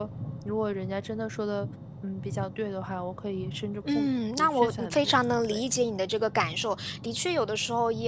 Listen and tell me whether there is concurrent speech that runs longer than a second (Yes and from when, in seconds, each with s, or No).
Yes, from 3.8 s